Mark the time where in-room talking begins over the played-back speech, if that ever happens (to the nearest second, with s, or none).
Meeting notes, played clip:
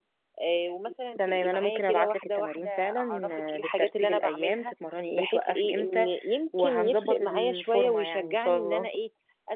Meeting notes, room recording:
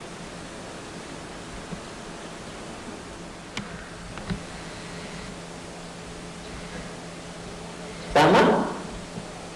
8 s